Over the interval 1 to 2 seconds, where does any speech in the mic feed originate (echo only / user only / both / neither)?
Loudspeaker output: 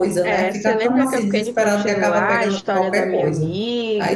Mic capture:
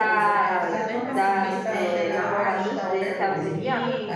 both